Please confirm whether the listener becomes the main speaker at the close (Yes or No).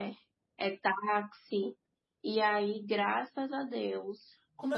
Yes